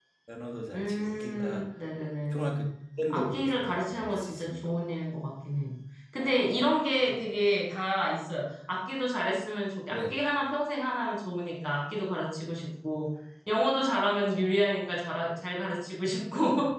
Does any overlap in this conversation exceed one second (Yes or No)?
Yes